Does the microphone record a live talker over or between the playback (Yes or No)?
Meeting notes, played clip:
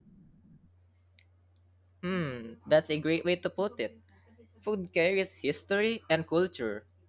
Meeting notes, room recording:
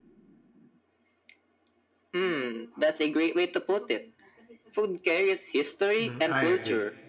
Yes